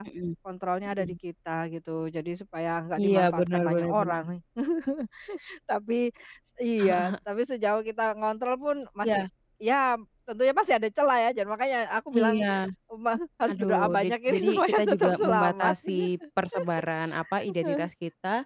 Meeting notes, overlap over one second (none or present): present